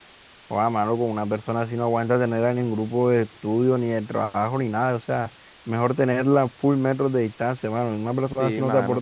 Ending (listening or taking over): listening